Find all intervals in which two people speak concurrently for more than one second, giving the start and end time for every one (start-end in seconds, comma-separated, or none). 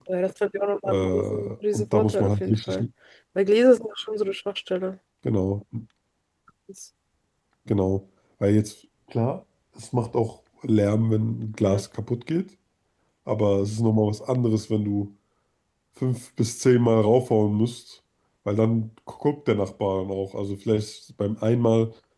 0.8-2.8